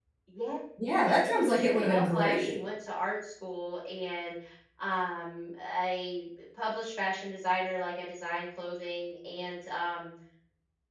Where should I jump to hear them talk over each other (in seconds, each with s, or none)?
1.1 s